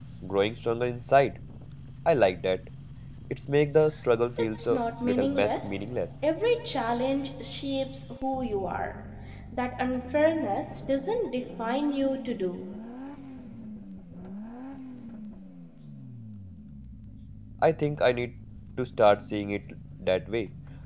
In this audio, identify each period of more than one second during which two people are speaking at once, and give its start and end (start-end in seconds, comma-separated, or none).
4.4-5.8